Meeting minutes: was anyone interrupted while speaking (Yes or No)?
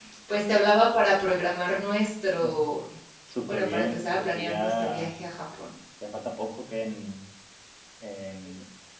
Yes